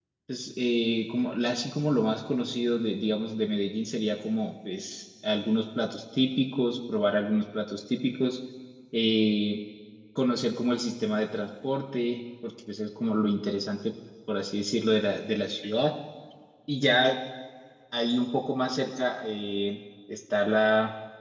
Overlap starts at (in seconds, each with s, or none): none